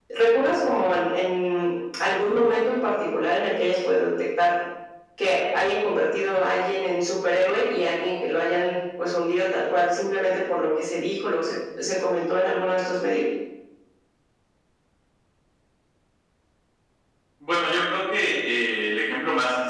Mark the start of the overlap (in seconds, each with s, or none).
none